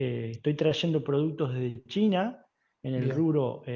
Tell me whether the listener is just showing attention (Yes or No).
Yes